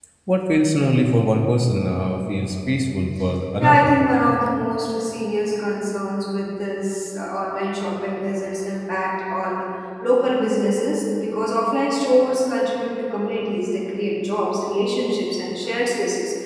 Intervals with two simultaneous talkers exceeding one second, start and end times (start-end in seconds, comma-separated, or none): none